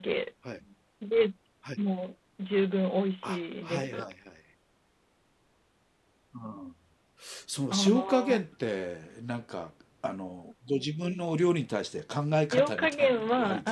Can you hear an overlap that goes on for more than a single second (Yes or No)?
Yes